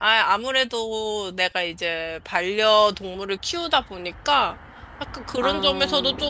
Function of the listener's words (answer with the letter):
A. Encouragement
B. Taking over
A